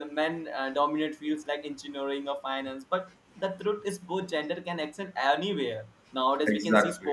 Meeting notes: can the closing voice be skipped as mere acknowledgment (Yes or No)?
Yes